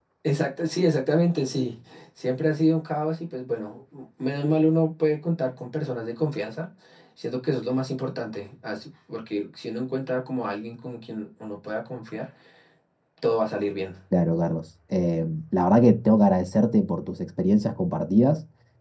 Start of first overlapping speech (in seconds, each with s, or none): none